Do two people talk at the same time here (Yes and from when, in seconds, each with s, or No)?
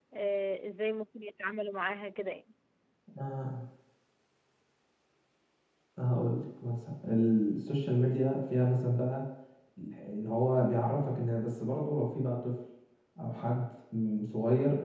No